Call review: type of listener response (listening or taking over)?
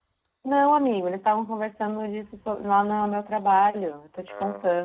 taking over